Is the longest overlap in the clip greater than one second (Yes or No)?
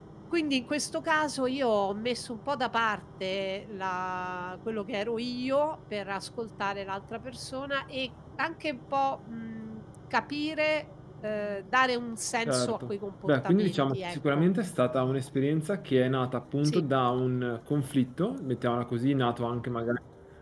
Yes